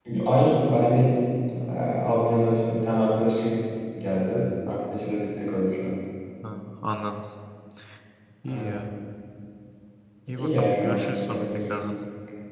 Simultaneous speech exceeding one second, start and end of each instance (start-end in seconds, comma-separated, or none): 10.4-11.7